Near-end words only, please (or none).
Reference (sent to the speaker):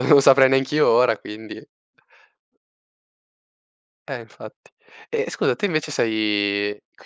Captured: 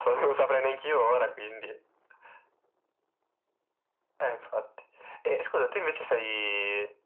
none